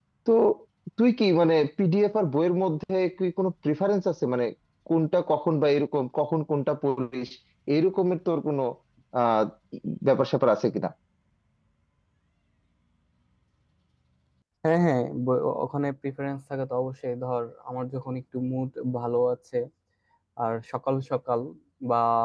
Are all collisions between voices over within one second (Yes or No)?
Yes